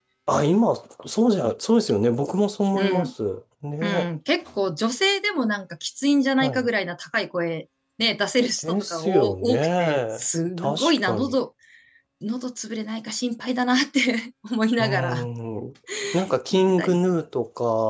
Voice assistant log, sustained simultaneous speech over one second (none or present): present